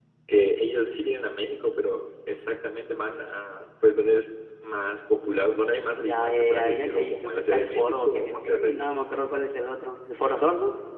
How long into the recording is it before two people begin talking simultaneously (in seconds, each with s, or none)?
6.0 s